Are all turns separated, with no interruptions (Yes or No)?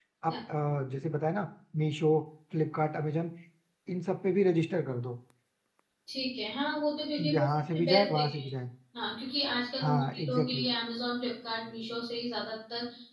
No